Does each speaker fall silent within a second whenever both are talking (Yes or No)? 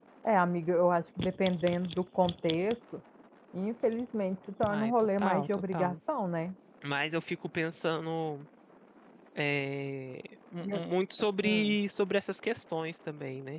No